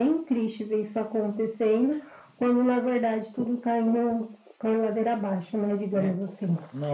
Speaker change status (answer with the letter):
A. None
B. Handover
B